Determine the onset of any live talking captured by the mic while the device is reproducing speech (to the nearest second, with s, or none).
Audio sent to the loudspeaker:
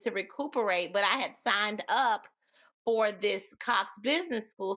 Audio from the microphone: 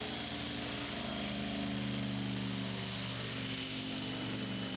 none